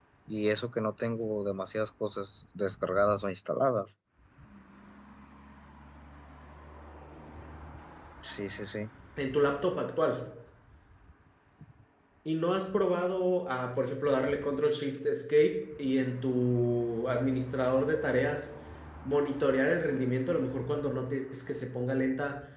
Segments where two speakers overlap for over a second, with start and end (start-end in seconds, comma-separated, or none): none